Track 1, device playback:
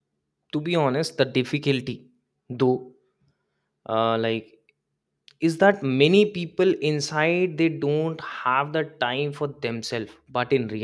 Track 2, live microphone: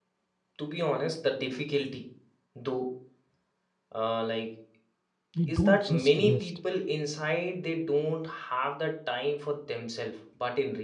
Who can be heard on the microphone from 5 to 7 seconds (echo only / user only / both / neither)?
both